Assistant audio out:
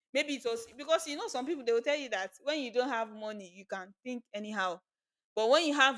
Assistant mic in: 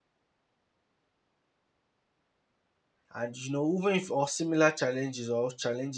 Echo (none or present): none